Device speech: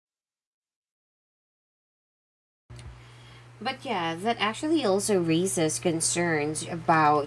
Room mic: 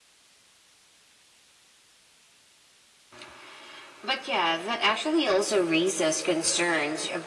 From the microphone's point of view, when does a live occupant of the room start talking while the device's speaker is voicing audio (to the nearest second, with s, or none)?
none